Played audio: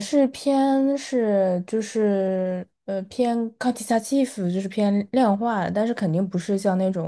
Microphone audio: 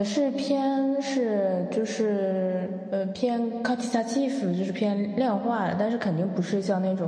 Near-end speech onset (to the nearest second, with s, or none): none